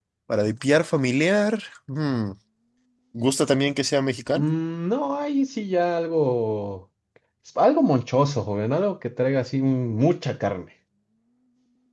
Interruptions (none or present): none